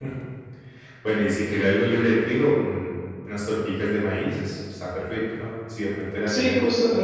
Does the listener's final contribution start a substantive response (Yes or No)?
Yes